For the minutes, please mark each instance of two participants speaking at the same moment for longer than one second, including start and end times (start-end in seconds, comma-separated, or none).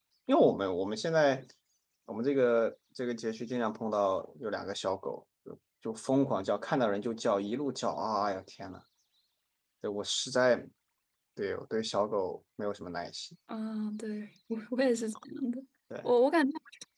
none